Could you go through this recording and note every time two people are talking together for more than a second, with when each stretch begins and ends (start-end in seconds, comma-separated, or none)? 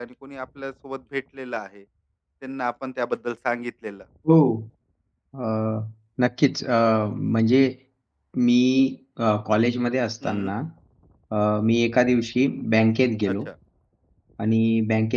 none